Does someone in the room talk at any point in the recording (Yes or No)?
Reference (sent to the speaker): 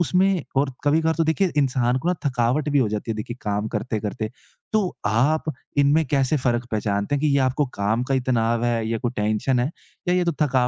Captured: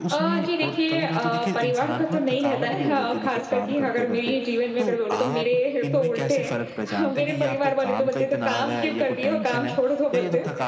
Yes